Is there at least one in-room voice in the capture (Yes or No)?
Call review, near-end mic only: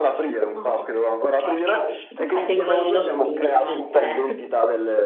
Yes